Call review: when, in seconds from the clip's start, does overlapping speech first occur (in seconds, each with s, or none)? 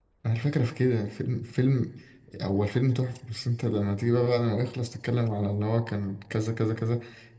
none